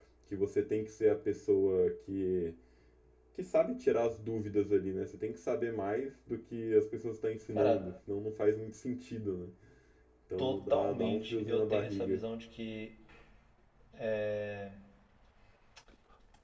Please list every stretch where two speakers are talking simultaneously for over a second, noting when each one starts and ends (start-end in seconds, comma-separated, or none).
10.4-12.2